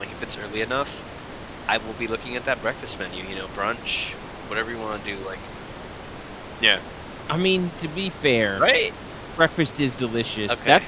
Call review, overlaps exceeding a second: none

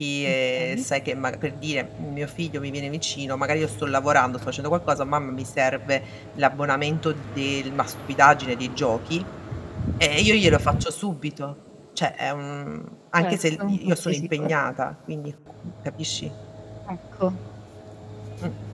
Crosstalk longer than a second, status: present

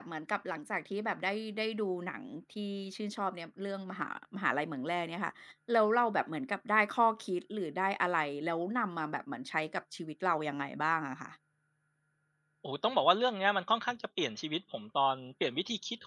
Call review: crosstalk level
none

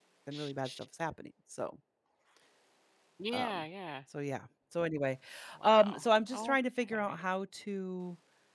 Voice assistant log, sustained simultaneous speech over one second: none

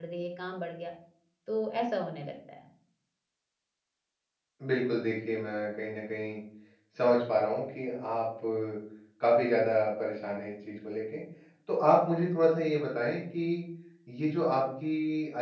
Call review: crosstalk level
none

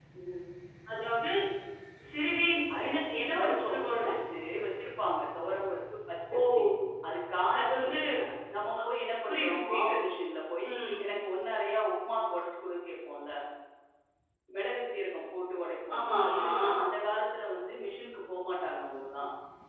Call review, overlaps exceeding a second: present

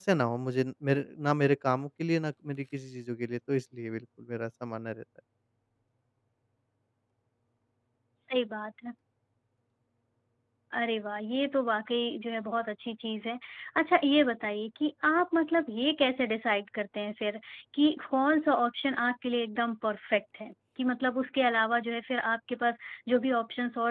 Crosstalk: none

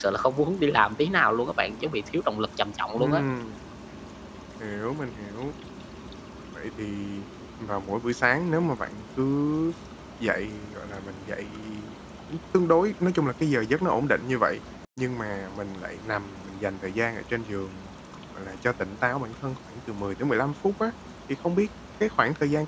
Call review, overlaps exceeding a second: none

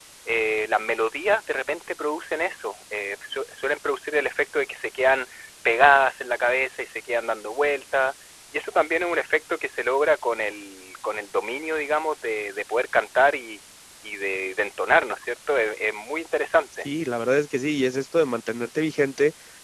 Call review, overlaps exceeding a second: none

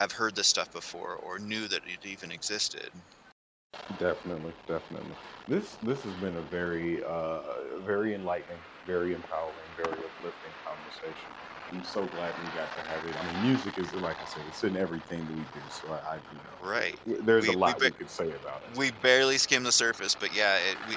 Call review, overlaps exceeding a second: none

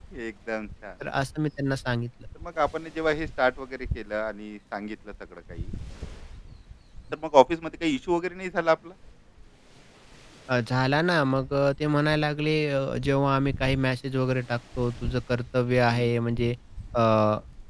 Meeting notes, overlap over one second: none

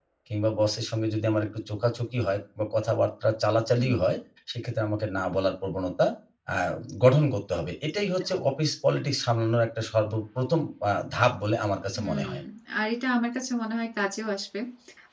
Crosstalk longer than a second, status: none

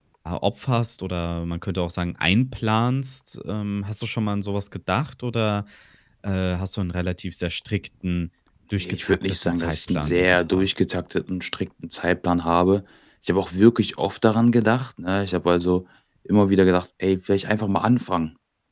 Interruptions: present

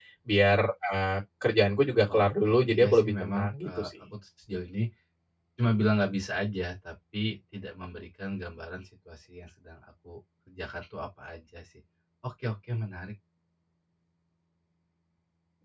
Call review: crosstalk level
present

